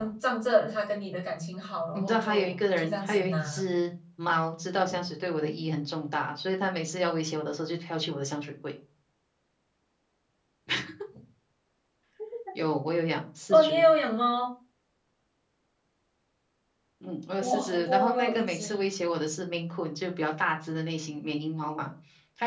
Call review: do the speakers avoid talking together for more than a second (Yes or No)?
No